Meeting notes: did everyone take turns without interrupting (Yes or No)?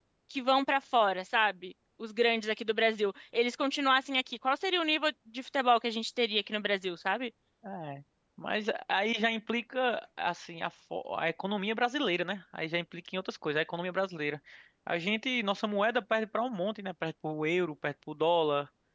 Yes